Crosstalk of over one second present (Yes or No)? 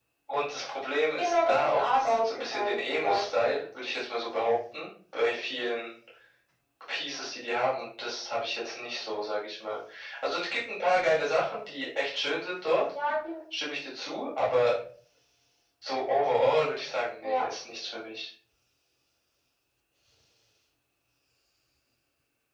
Yes